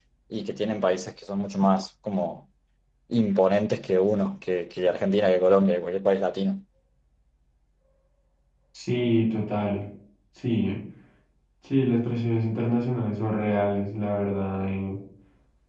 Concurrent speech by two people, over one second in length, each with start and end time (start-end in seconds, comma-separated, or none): none